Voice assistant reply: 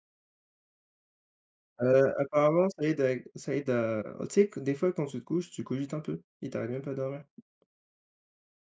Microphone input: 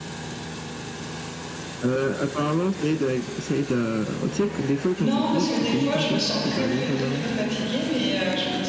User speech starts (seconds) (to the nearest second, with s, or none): 5 s